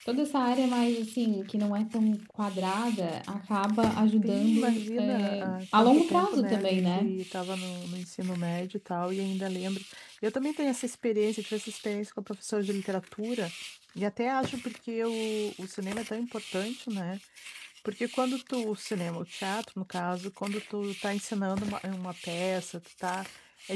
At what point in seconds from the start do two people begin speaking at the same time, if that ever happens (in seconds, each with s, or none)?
4.2 s